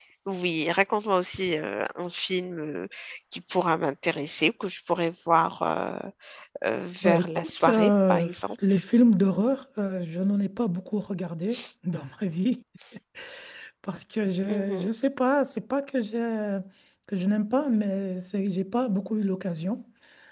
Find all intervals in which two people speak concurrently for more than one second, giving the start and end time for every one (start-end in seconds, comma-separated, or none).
7.0-8.3